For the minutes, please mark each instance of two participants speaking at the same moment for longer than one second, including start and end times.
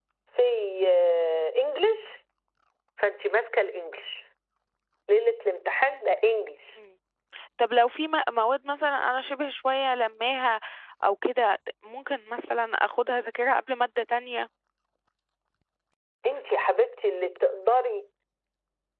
none

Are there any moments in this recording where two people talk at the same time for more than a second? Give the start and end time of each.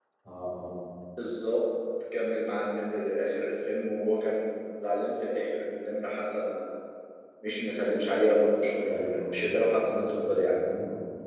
8.9-10.5

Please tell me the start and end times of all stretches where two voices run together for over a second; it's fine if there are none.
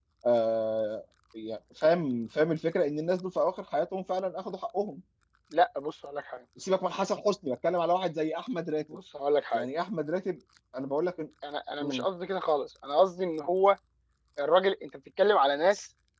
none

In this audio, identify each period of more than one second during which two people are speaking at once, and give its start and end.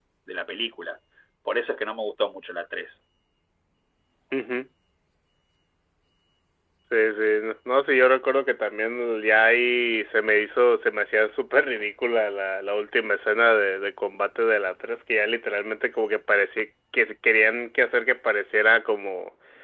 none

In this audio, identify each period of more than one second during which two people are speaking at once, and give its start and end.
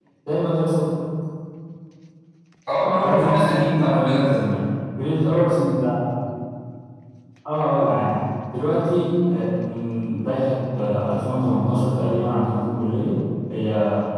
3.0-4.3

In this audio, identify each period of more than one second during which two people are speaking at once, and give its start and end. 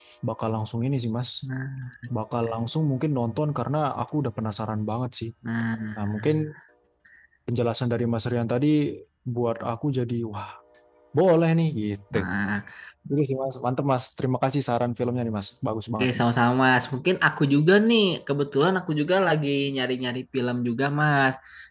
none

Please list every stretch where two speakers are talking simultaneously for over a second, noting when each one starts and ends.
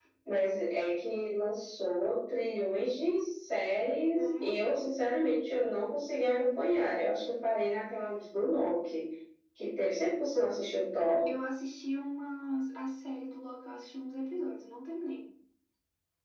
none

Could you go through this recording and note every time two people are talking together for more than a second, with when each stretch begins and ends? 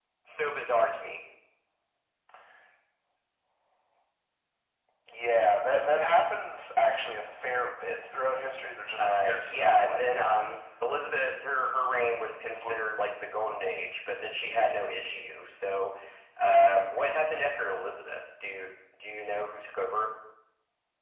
9.0-10.4

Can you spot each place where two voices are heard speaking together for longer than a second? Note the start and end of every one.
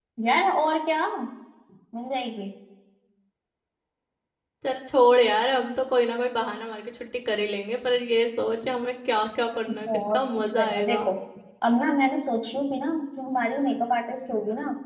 9.7-11.1

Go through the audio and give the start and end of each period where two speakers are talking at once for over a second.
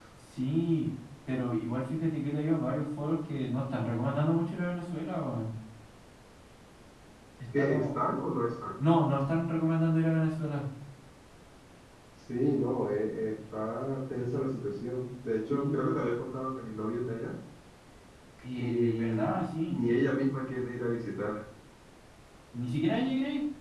18.6-19.8

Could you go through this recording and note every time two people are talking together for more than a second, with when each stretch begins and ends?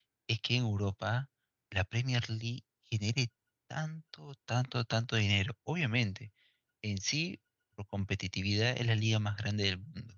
none

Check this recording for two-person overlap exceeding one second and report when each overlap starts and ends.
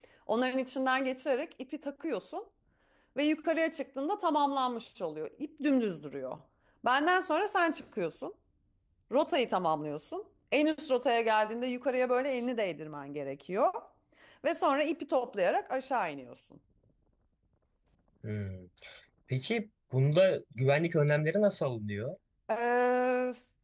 none

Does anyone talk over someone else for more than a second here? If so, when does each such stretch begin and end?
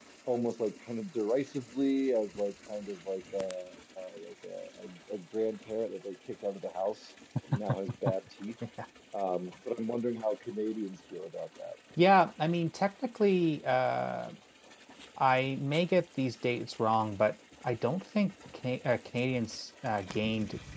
none

